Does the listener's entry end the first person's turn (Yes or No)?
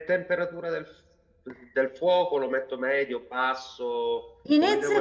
Yes